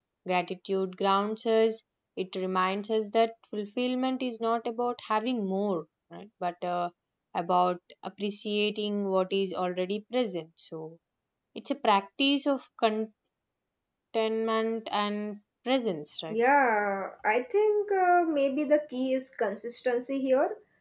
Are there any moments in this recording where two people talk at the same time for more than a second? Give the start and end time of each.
none

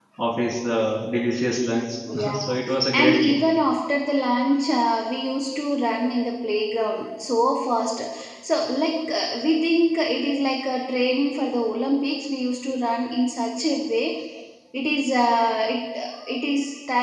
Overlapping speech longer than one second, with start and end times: 2.1-3.4

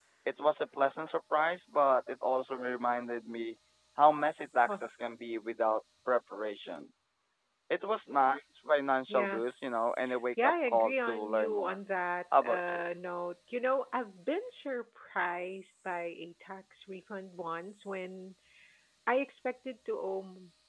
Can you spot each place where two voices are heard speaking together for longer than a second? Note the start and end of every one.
10.4-11.8

